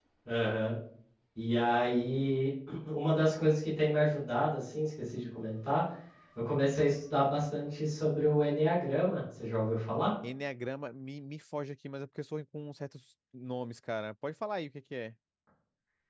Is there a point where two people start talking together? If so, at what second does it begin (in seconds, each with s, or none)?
none